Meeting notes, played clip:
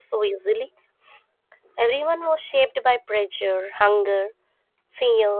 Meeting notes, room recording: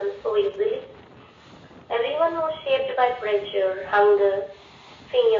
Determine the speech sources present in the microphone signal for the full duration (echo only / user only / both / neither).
echo only